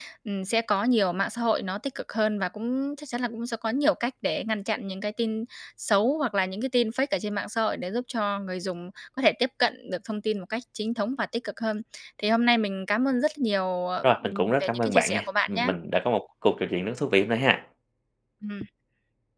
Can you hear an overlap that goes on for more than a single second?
Yes, from 14.0 s

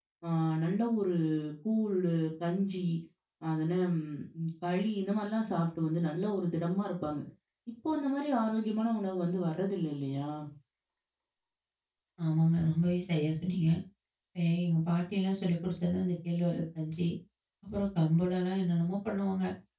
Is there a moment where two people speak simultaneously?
No

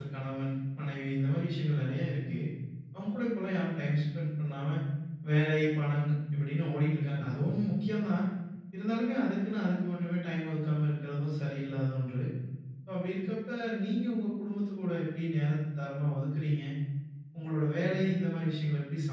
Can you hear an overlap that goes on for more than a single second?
No

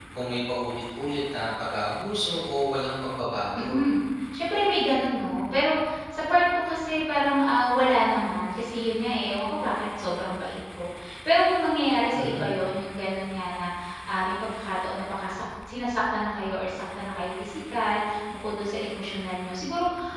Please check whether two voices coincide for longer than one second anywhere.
No

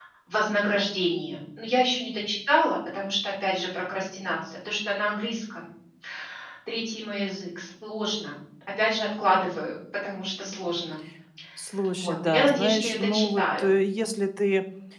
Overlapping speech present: Yes, from 11.9 s

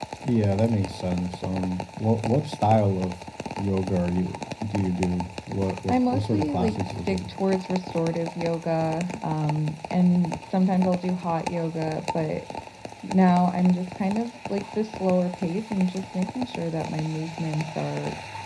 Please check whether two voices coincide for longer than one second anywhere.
Yes, from 5.9 s

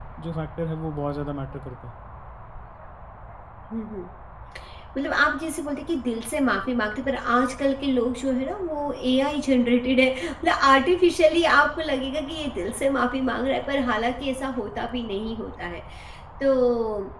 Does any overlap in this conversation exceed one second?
No

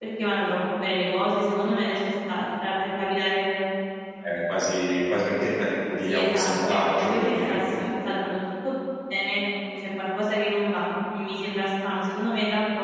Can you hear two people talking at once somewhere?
Yes, from 6.0 s

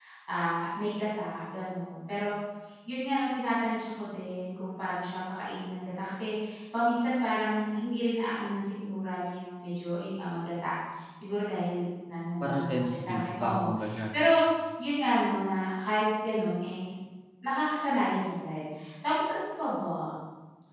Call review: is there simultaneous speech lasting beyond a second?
Yes, from 12.4 s

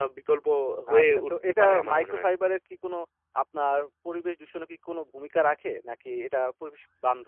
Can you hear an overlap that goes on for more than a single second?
Yes, from 1.0 s

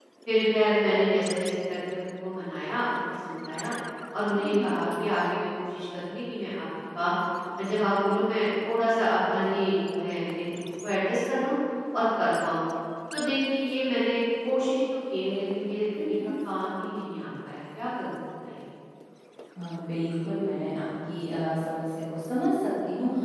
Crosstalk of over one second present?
No

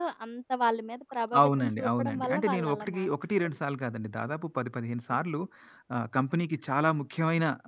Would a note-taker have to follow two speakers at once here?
Yes, from 1.3 s

